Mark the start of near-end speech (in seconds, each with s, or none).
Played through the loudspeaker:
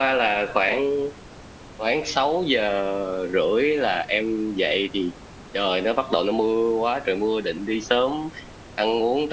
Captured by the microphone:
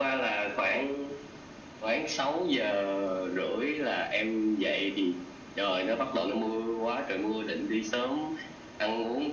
none